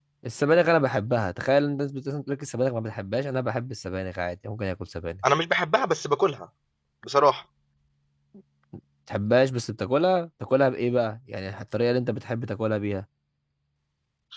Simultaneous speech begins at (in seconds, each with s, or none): none